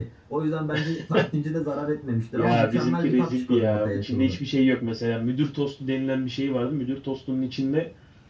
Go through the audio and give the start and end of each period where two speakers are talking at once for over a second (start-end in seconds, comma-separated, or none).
2.4-4.4